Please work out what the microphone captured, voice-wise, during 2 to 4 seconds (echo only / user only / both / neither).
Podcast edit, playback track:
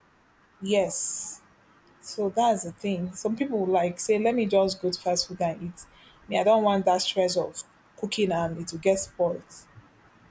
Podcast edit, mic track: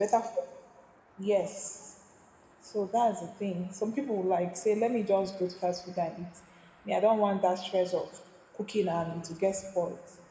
echo only